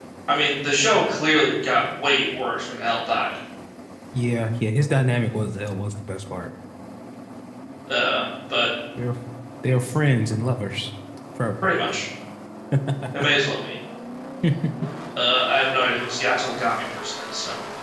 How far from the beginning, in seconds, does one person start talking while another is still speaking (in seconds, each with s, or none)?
none